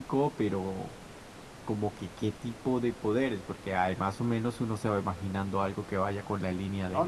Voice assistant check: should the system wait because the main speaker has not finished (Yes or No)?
No